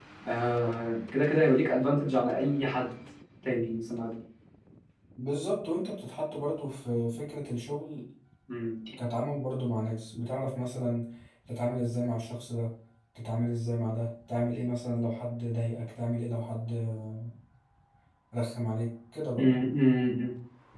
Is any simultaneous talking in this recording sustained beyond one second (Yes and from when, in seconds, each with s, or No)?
No